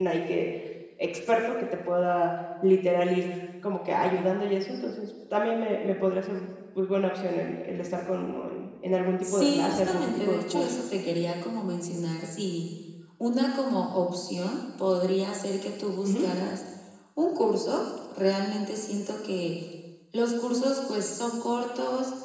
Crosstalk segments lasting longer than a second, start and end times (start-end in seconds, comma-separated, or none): 9.2-10.7